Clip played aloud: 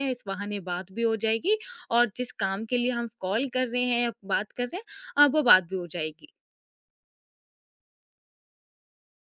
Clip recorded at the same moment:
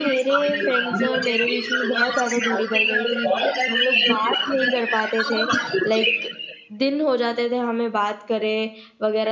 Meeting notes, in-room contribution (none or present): present